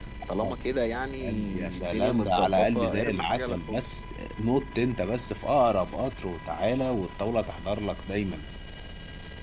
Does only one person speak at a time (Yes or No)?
No